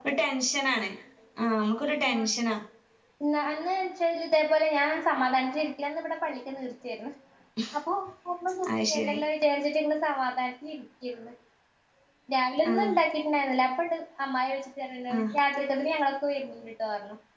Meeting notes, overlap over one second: none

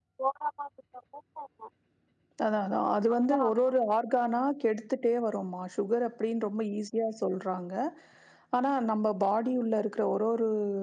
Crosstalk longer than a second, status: none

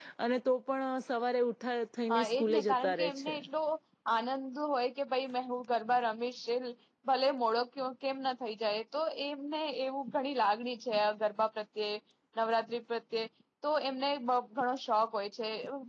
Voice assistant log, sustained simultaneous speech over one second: present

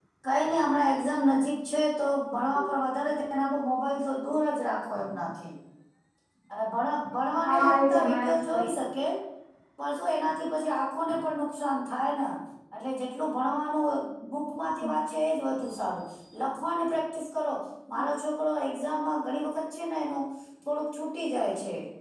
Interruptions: present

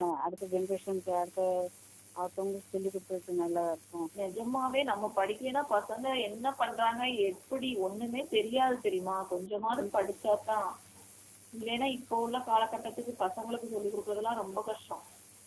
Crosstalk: none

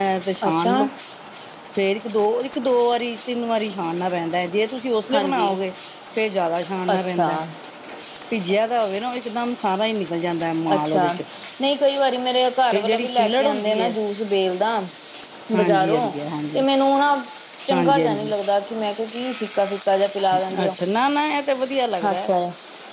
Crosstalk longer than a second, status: present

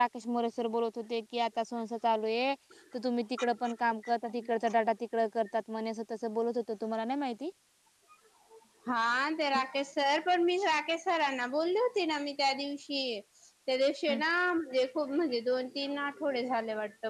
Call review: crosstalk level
none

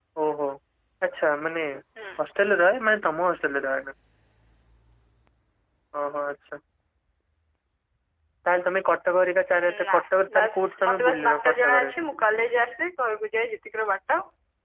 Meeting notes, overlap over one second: present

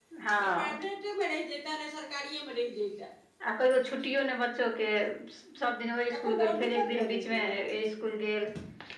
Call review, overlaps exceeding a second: present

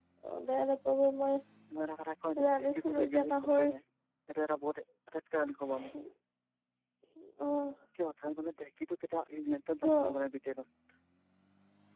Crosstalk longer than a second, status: present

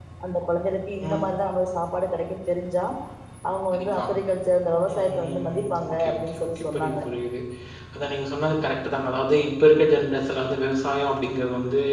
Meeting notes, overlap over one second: present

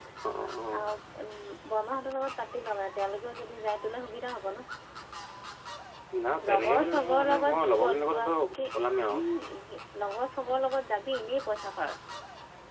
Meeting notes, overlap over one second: present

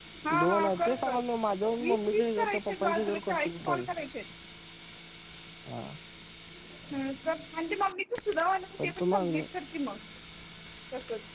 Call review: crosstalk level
present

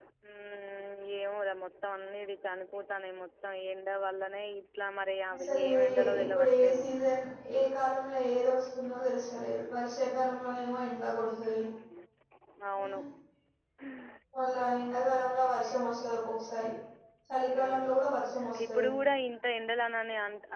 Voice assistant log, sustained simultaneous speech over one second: present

